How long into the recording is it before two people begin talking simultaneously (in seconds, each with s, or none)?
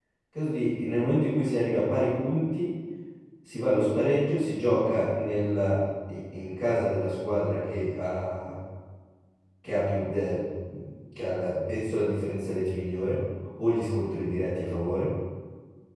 none